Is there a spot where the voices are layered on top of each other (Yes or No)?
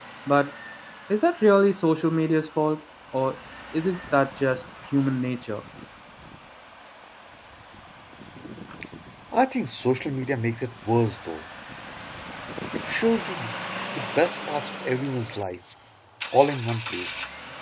No